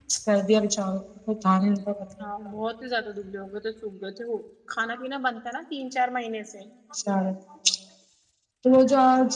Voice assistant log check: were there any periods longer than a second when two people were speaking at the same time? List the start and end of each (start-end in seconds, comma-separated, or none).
none